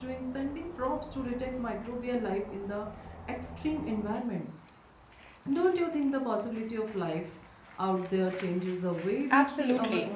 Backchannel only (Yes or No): No